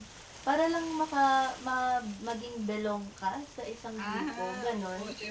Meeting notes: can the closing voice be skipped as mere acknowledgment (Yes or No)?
No